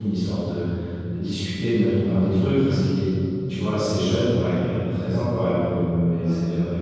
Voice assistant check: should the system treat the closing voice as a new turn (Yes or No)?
No